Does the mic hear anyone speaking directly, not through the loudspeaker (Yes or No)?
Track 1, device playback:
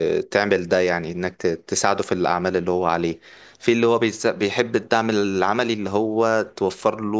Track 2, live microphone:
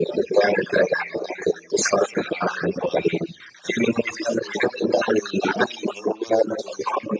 No